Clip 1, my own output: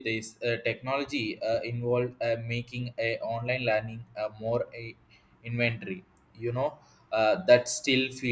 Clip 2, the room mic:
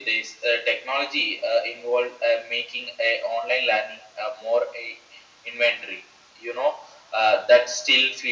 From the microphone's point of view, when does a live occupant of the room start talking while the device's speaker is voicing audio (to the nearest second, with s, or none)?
none